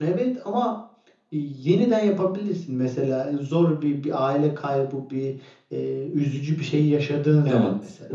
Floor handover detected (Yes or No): Yes